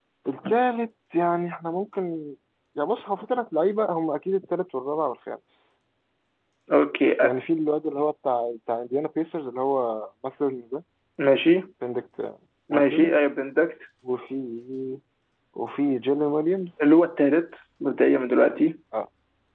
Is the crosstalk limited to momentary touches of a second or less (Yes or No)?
Yes